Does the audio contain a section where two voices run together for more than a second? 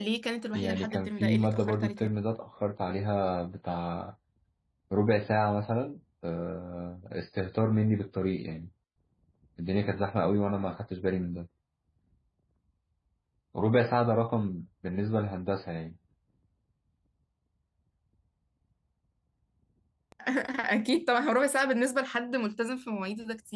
Yes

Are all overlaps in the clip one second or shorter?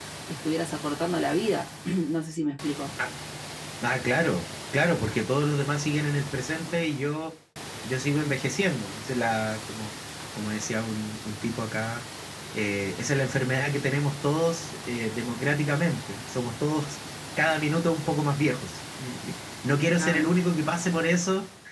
Yes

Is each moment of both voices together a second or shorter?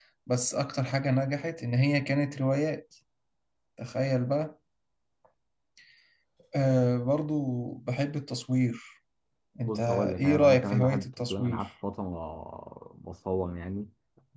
No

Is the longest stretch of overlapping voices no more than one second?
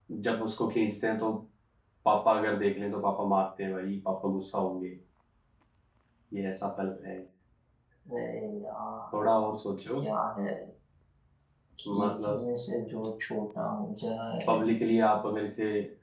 Yes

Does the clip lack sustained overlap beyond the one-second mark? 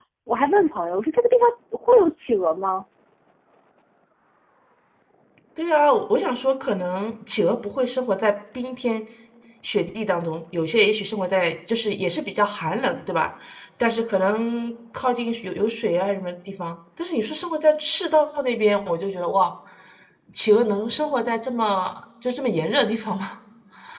Yes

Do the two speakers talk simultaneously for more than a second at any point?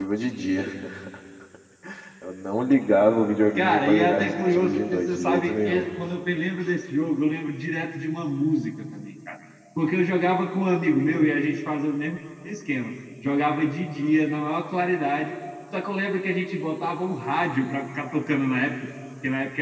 Yes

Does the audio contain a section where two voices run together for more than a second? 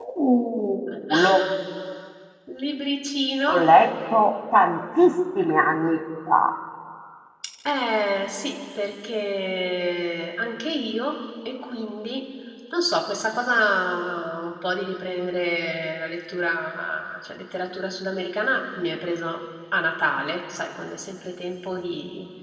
No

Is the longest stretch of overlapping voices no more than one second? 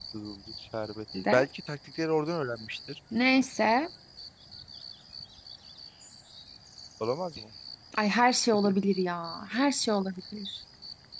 Yes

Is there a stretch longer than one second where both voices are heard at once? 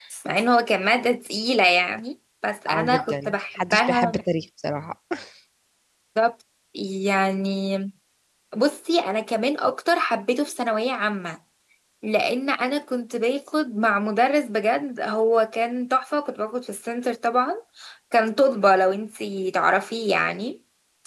Yes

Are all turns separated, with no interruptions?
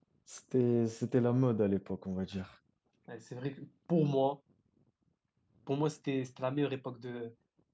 Yes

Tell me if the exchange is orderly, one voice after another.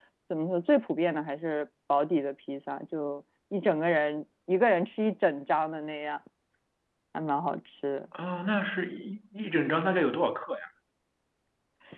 Yes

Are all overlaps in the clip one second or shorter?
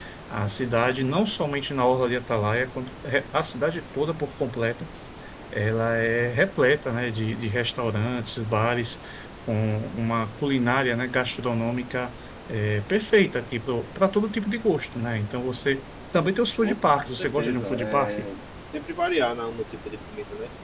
No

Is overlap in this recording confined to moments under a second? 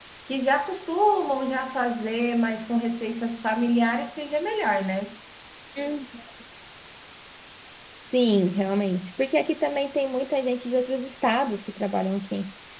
Yes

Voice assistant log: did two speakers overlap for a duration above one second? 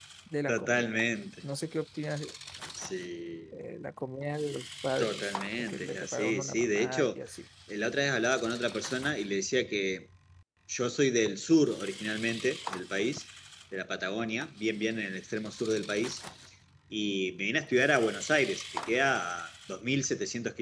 Yes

